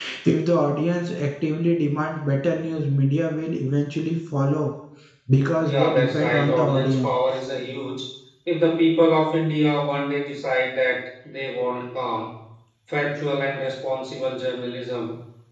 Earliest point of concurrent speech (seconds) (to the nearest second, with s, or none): 6 s